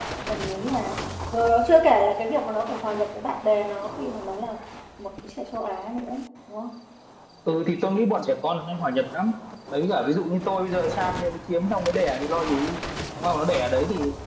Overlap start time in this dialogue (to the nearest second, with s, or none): none